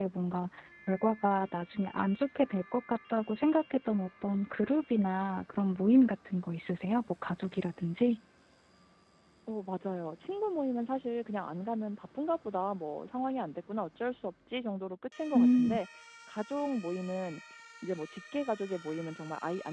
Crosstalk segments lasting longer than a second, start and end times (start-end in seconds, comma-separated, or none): none